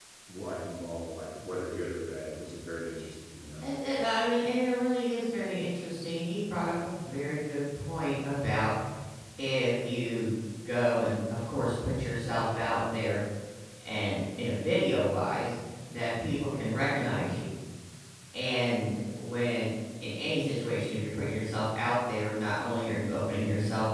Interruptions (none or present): none